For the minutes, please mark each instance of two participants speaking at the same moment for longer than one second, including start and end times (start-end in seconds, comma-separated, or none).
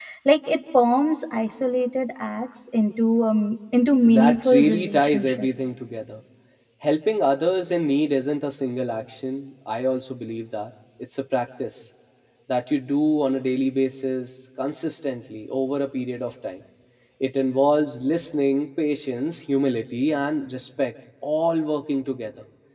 4.1-5.7